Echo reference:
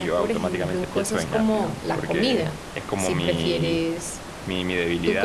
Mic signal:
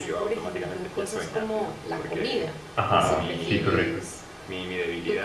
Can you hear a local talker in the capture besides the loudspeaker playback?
Yes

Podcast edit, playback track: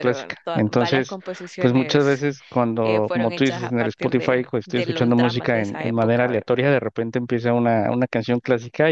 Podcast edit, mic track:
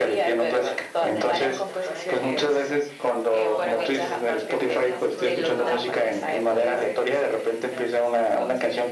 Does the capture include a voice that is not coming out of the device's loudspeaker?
Yes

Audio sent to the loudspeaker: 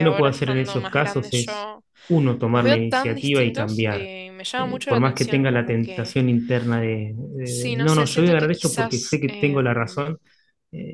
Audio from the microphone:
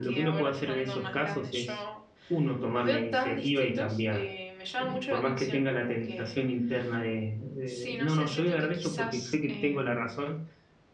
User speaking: No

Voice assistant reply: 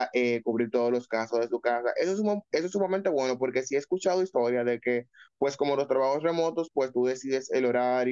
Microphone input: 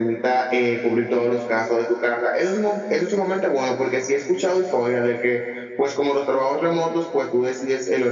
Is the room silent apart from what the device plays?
Yes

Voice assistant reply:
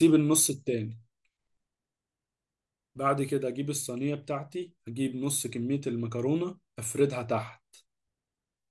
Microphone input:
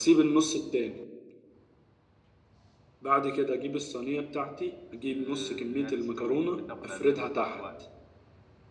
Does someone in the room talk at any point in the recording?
Yes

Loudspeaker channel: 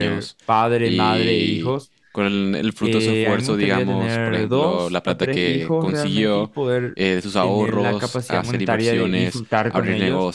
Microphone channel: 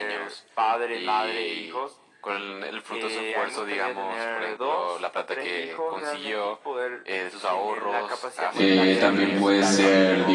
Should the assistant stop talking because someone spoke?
Yes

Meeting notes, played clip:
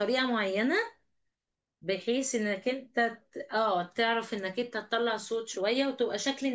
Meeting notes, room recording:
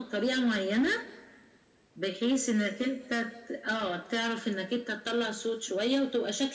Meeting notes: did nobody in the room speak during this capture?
Yes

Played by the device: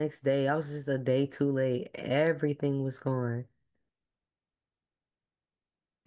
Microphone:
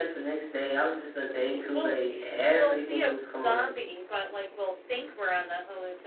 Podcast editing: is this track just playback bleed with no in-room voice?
No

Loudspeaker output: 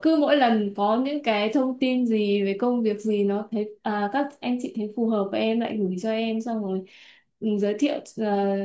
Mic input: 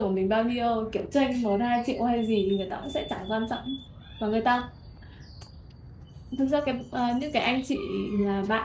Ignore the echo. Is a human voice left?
Yes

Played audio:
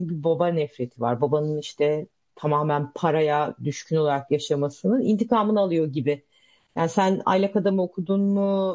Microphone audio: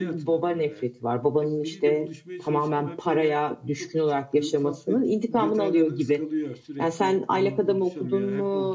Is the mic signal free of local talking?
No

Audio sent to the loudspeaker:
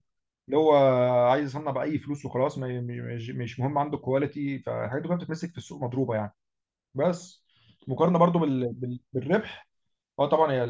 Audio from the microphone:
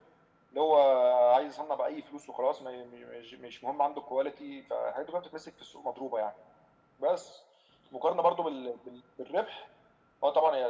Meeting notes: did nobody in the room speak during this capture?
Yes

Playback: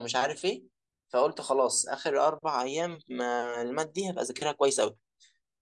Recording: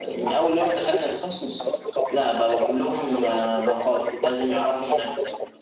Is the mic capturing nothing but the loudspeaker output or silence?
No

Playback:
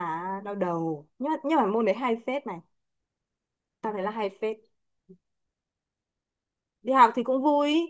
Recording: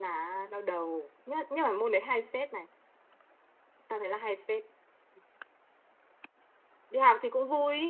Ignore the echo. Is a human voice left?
No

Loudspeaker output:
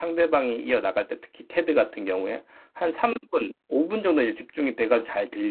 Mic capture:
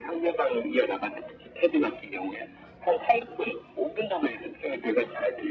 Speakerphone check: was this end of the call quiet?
Yes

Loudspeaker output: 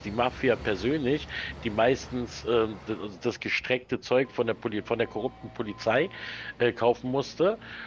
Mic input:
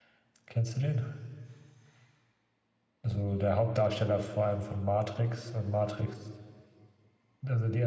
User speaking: Yes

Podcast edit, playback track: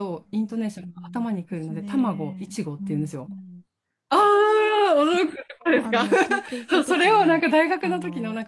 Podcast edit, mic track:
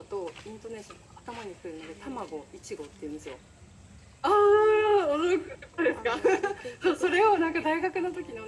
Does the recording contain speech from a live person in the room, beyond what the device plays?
No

